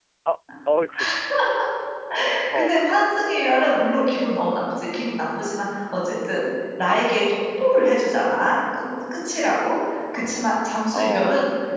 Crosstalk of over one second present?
No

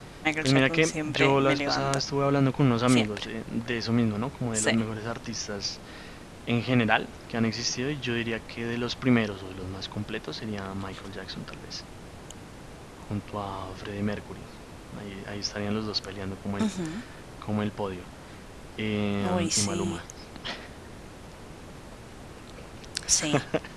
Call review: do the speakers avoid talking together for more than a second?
No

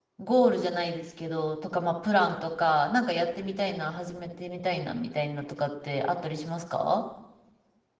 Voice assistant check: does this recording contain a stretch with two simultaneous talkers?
No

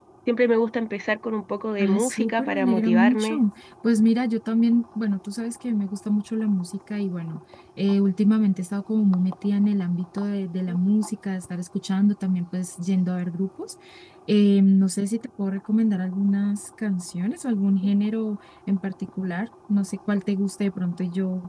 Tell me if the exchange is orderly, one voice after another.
No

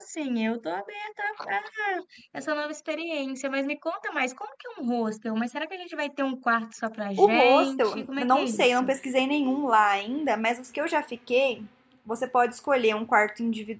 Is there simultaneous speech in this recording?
Yes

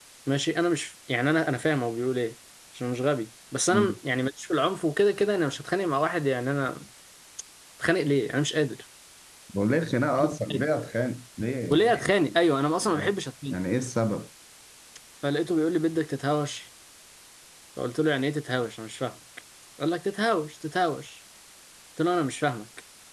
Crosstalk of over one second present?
No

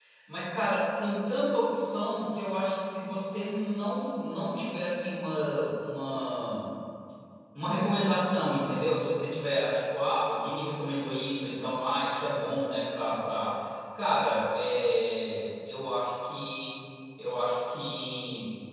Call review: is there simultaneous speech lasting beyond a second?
No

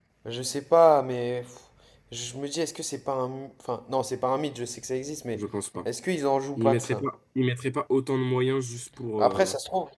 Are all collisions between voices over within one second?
Yes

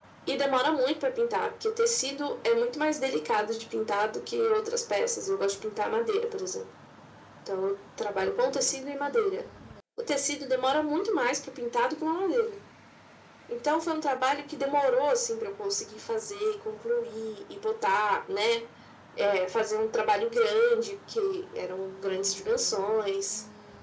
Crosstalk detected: No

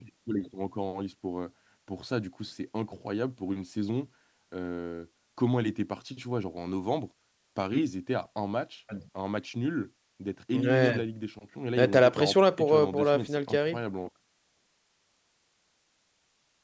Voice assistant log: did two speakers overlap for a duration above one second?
Yes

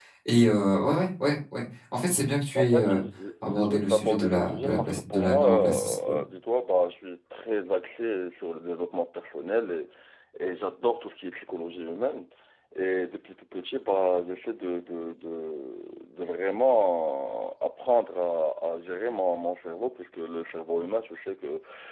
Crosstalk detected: Yes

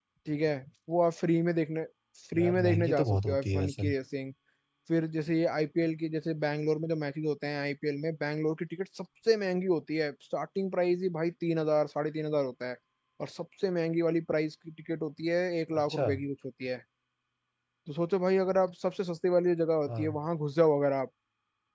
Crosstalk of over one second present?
Yes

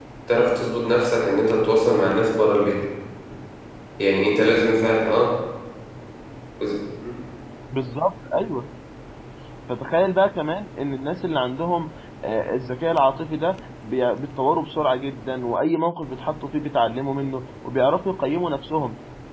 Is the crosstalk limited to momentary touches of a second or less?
Yes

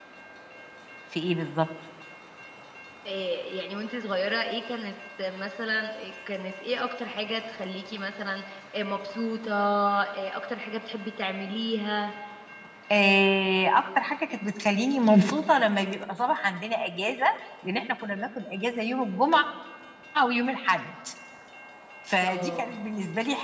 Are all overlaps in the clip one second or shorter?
Yes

